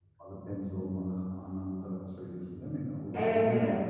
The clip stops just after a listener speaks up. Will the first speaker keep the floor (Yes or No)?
No